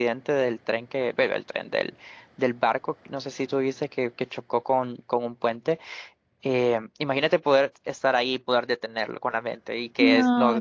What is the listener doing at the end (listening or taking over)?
taking over